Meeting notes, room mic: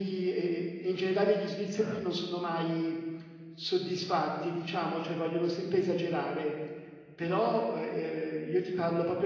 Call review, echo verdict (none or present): present